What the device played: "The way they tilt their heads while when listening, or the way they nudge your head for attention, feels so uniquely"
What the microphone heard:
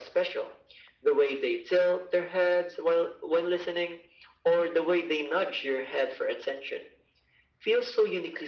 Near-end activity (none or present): none